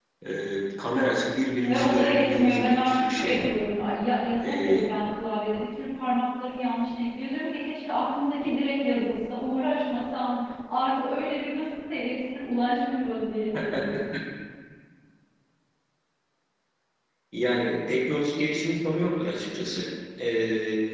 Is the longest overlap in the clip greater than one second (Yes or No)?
Yes